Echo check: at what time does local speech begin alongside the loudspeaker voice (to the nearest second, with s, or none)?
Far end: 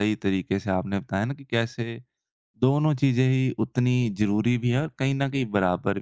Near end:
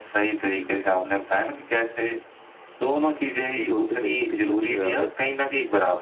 4 s